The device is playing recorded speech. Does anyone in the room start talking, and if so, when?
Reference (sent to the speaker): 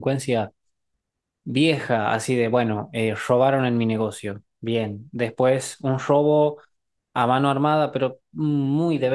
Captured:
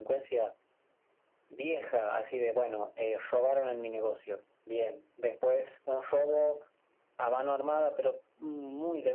none

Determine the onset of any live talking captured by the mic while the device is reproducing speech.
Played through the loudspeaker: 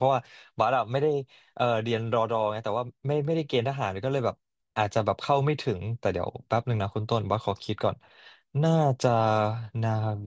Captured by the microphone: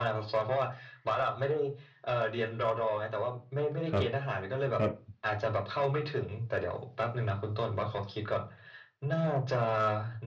3.9 s

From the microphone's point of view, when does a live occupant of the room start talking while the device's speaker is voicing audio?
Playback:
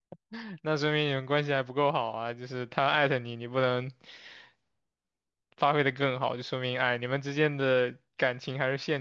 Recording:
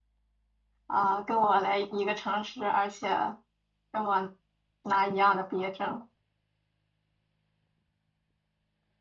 0.8 s

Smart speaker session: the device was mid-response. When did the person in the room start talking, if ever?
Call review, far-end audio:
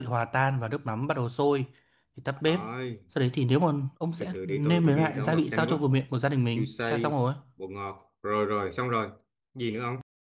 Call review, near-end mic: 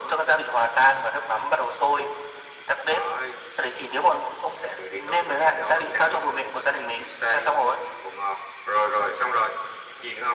none

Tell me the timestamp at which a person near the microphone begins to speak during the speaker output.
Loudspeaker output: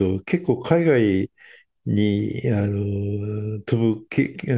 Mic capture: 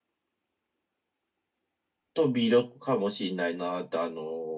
2.1 s

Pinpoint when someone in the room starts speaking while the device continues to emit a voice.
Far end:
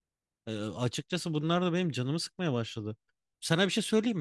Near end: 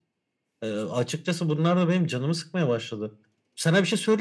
none

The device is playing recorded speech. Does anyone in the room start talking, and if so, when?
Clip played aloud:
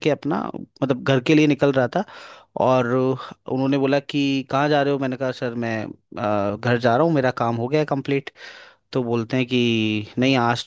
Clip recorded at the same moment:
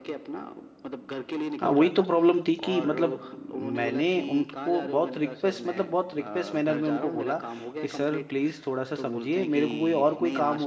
1.6 s

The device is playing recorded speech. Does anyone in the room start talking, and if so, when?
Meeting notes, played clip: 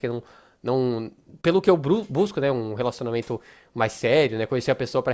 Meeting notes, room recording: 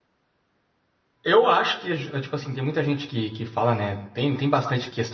1.2 s

